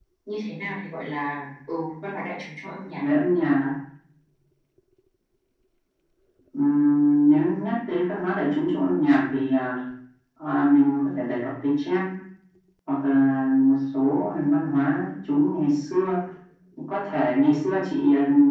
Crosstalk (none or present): none